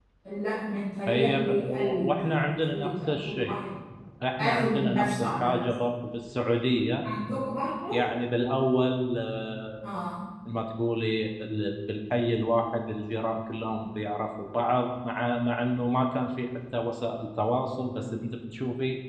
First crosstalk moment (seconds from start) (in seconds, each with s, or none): 1.1 s